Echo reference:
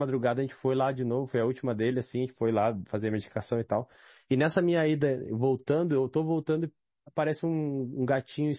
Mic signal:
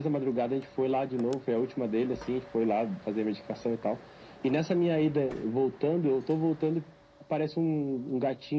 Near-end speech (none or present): none